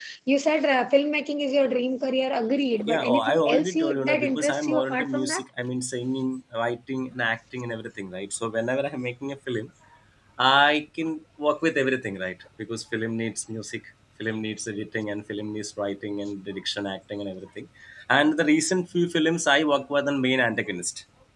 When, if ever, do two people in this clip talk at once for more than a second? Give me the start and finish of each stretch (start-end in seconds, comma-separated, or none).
2.9-5.4